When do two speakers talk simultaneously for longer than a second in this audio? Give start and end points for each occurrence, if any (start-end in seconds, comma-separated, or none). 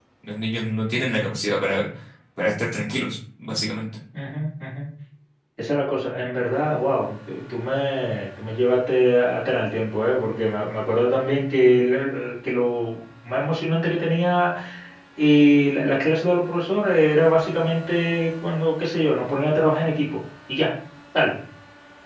none